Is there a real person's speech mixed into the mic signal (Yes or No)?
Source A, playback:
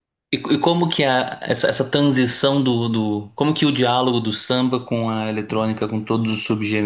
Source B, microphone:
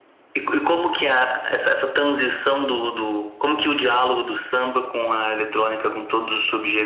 No